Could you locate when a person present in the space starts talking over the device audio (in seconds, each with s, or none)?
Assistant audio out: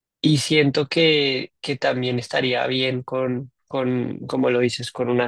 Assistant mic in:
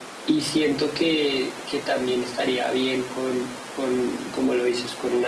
none